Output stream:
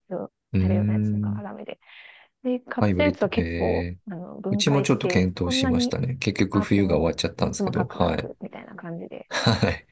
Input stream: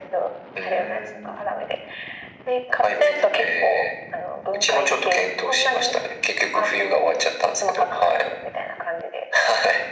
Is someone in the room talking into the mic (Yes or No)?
No